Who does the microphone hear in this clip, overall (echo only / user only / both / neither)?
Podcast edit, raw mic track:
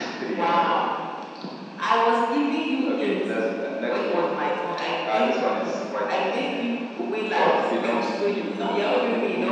echo only